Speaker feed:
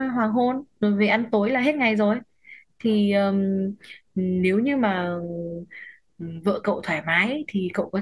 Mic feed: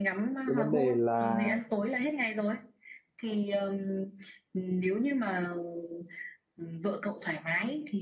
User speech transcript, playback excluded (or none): cái vấn đề là